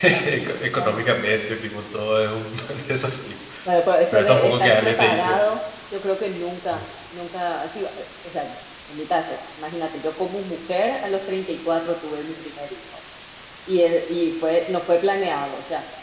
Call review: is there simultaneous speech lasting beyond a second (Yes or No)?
Yes